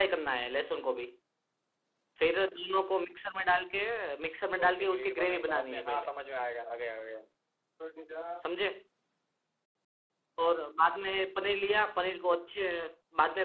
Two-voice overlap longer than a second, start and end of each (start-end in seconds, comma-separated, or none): 4.6-6.1